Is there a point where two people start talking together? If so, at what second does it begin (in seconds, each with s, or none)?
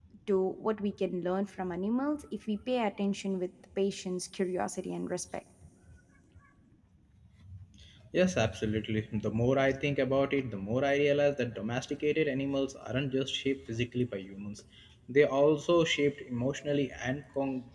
none